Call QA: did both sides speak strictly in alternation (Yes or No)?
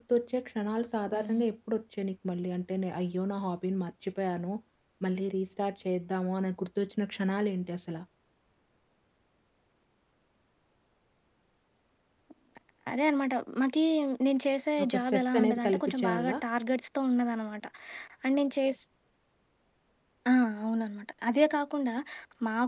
No